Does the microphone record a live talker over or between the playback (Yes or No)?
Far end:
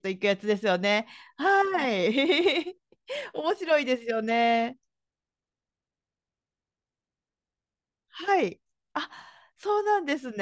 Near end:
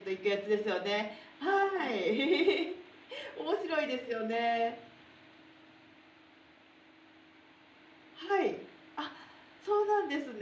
No